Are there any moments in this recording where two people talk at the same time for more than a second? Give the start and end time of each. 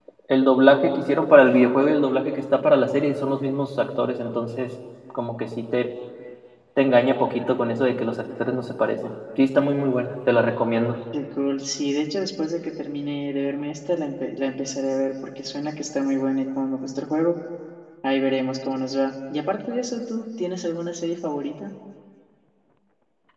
none

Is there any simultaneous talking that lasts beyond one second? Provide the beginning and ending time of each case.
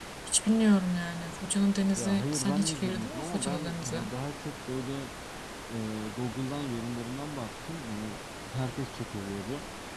2.0-4.0

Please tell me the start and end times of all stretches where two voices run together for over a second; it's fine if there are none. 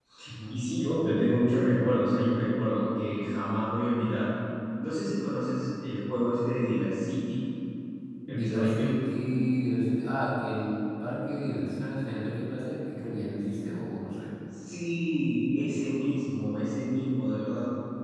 none

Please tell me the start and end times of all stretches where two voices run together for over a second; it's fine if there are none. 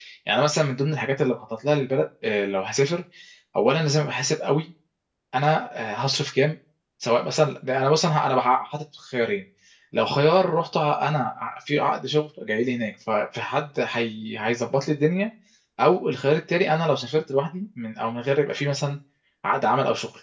none

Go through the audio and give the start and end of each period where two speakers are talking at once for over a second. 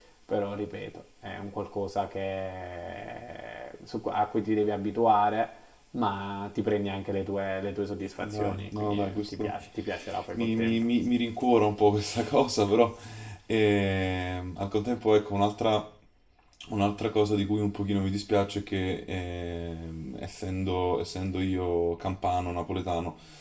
8.2-9.5

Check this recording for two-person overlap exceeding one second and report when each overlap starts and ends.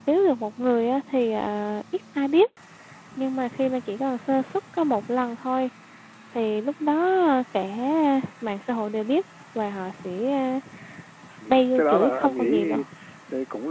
11.5-12.7

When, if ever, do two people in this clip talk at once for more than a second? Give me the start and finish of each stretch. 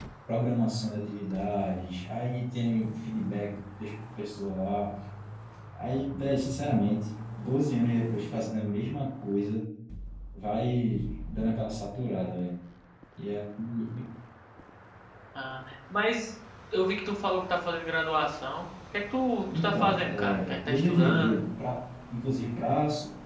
19.5-21.4

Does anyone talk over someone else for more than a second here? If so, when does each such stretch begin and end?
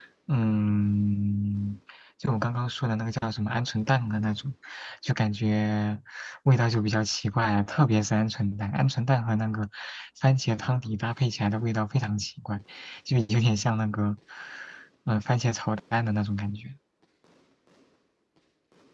none

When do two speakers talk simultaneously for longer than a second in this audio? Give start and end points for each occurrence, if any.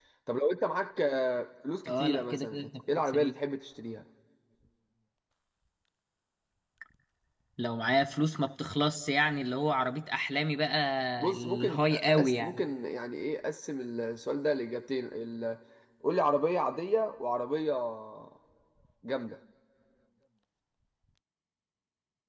1.9-3.3, 11.3-12.6

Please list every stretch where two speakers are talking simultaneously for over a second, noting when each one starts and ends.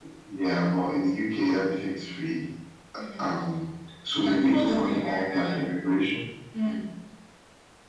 4.2-5.6

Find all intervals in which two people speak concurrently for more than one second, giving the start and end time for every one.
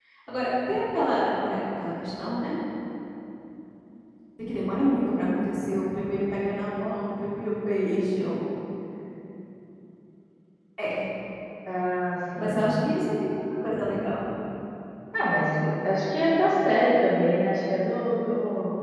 none

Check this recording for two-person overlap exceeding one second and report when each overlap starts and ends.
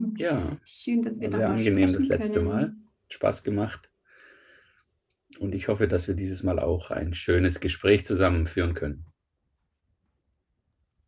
1.2-2.7

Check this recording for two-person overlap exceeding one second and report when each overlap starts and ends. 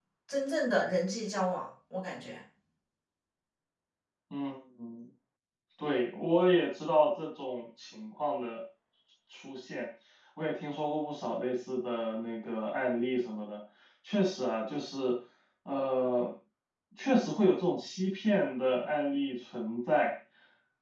none

